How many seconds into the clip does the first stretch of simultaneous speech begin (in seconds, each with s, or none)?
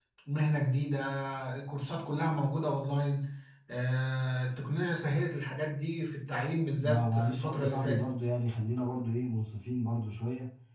6.8 s